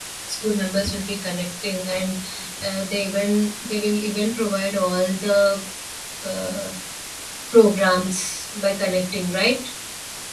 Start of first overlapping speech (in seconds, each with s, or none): none